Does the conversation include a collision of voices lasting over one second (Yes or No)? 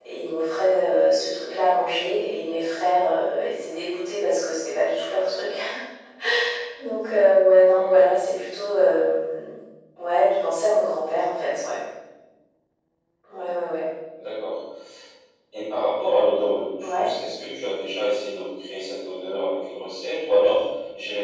No